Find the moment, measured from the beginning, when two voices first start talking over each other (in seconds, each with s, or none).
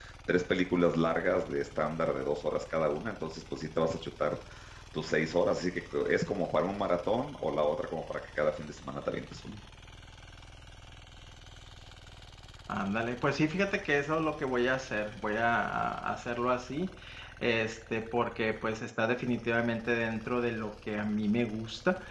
none